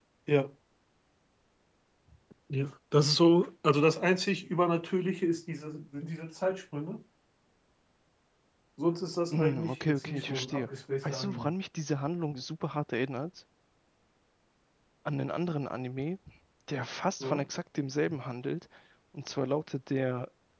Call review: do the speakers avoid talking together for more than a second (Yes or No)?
No